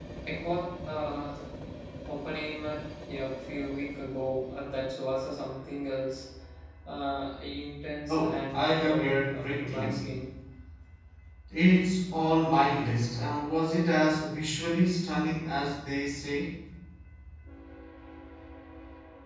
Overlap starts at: 8 s

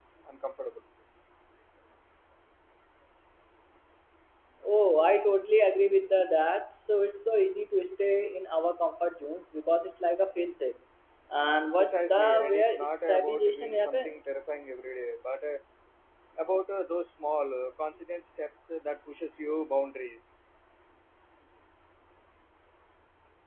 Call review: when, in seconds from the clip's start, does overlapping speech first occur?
12 s

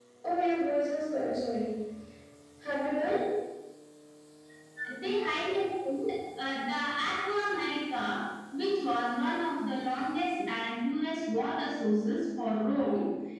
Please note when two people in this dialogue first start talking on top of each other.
none

